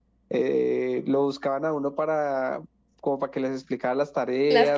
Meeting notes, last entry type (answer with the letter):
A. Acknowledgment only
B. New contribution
A